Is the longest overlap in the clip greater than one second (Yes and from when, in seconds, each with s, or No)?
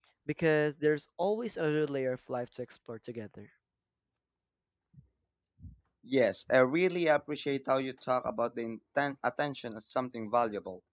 No